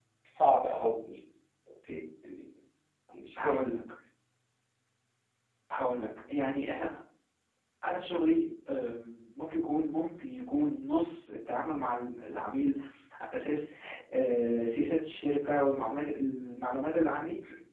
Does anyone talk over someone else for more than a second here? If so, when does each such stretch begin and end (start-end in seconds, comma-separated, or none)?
none